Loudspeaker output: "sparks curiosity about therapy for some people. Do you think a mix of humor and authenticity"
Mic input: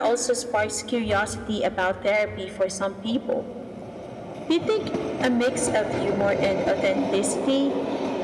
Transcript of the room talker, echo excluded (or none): none